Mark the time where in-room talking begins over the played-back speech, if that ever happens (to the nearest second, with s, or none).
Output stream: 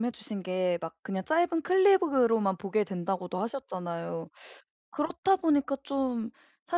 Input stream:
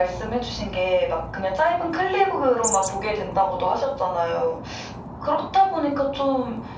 none